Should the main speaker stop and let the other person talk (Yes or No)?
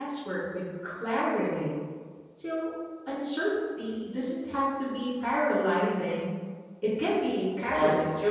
Yes